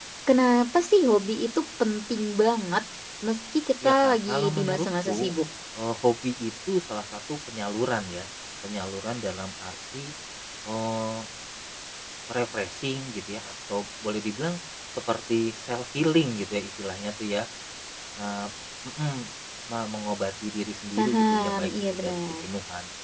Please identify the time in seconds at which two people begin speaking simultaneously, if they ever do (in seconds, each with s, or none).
3.8 s